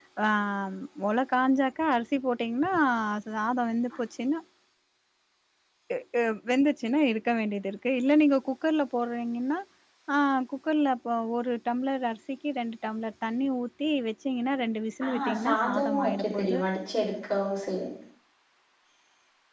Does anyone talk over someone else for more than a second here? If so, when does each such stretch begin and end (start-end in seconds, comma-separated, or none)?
15.1-16.6